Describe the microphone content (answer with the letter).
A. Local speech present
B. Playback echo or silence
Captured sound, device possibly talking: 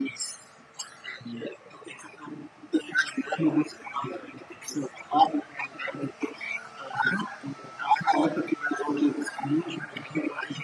B